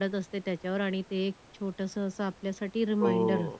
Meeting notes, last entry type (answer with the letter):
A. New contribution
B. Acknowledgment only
A